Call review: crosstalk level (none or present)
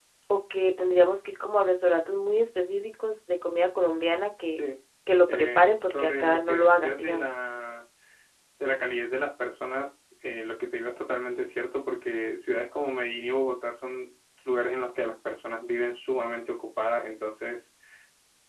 present